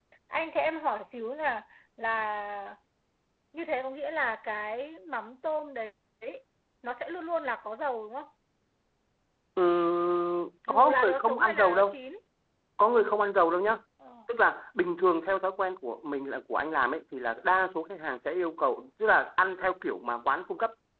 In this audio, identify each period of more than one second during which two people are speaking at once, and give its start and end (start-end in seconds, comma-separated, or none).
10.7-12.0